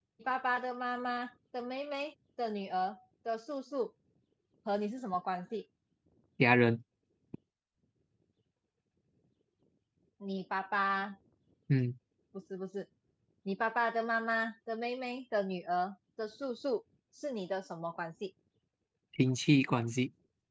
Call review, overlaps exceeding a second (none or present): none